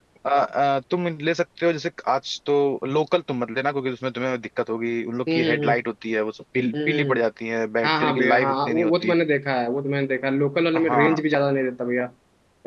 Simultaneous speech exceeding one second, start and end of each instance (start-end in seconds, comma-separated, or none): 7.8-9.1